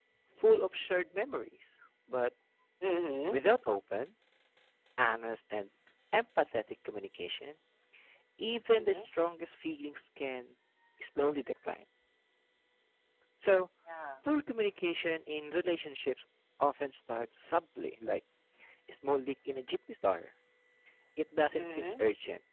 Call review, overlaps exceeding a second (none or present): none